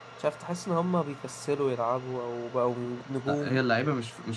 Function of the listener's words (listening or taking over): taking over